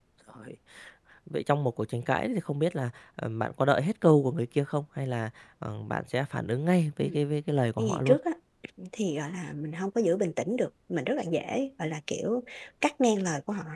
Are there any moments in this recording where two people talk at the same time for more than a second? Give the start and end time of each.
none

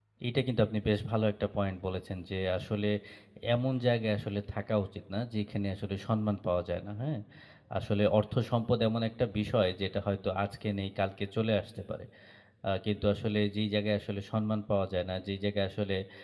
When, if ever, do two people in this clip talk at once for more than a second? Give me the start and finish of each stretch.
none

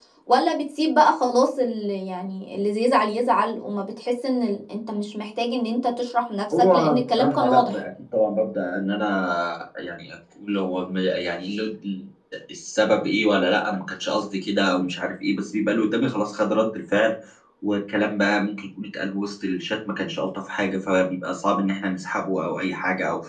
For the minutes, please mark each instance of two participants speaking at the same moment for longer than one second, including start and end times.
6.6-7.8

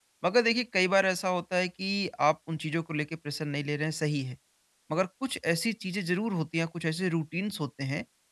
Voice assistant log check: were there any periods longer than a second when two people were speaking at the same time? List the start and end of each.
none

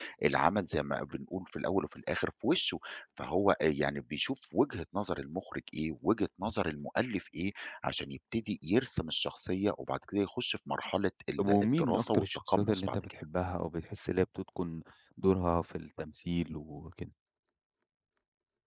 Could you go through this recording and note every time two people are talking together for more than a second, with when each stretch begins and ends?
11.4-13.1

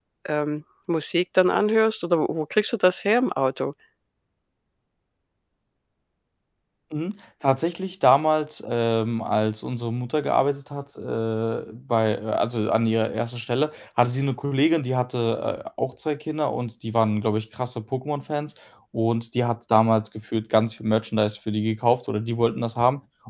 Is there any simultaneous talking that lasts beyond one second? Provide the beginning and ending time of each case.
none

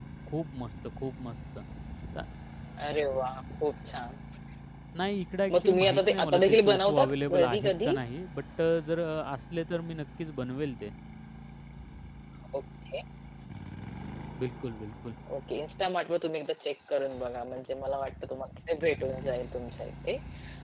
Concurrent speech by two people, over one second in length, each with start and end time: 5.6-7.9

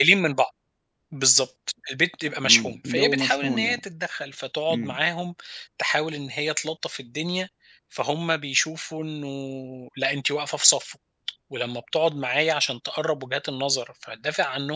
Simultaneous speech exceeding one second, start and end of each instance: 2.4-3.8

